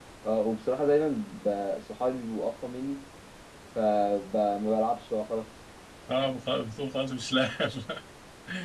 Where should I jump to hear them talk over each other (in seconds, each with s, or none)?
none